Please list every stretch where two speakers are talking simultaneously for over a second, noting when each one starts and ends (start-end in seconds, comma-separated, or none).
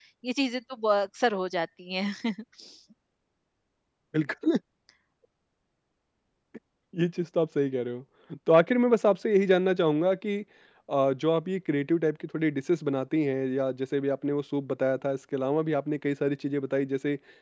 none